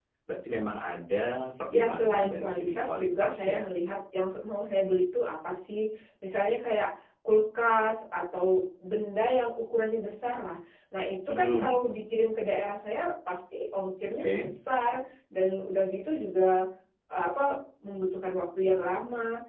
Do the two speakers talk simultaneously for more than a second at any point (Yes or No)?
Yes